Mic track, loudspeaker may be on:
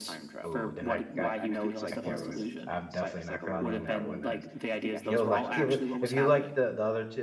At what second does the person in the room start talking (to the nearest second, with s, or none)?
0 s